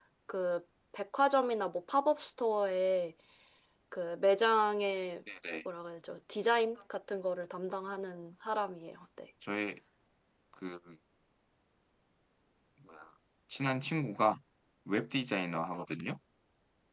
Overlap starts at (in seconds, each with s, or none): none